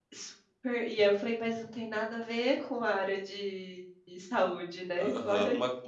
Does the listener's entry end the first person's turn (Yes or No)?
Yes